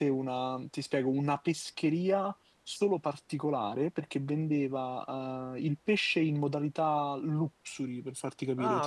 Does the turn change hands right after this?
No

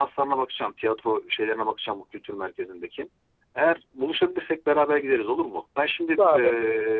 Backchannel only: Yes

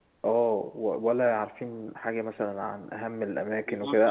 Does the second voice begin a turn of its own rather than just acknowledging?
No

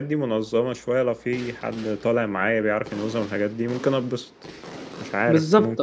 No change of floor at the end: No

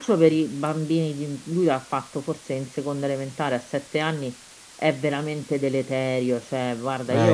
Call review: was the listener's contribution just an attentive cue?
Yes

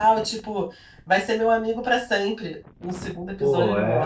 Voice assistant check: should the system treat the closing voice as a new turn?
Yes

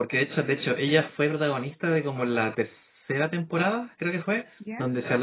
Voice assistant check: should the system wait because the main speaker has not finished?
Yes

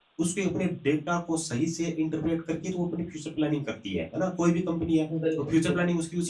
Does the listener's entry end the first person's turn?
No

